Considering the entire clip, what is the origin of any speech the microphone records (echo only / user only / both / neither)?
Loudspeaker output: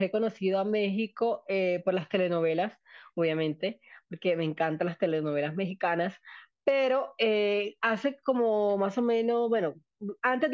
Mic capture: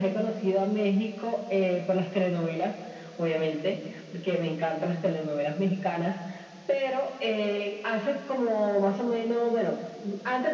echo only